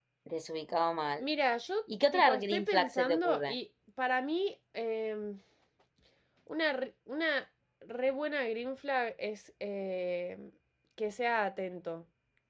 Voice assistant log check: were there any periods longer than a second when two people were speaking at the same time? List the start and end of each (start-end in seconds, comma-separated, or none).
2.1-3.5